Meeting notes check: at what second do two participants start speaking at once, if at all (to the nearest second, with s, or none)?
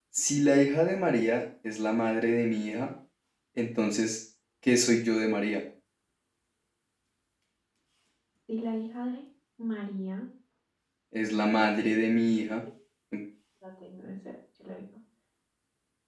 none